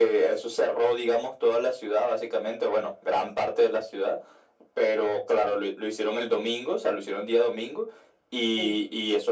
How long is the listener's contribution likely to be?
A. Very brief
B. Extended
A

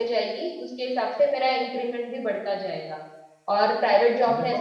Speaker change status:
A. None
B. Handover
A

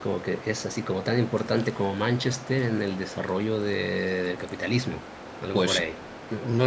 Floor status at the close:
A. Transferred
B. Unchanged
A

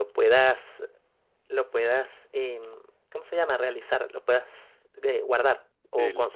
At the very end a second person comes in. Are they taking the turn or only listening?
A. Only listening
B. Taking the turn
B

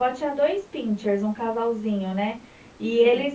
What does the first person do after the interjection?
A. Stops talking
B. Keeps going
B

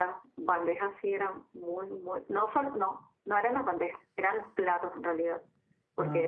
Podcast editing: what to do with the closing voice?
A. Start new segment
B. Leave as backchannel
B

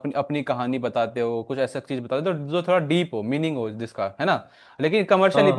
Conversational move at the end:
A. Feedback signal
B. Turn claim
A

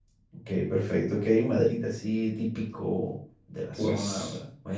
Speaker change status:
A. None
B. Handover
B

